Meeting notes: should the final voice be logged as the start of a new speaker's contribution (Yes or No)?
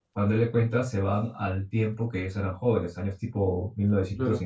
Yes